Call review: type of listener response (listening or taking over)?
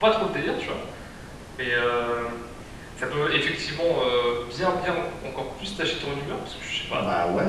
listening